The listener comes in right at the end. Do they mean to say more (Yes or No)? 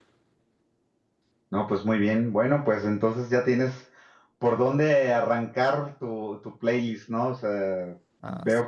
No